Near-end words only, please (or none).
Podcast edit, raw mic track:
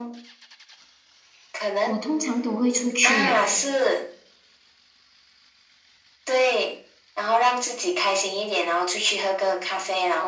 我通常都会出去嘞，